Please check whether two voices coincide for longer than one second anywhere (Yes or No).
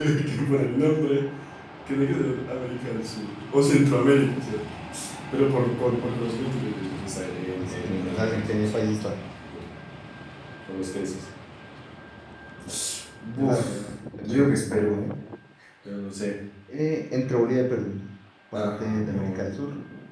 Yes